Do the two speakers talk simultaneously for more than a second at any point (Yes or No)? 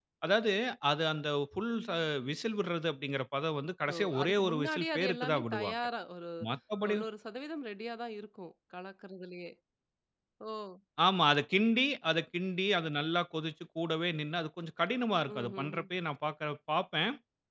Yes